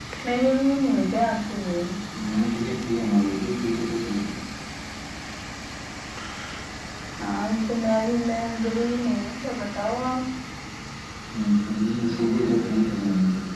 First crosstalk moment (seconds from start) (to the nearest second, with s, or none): none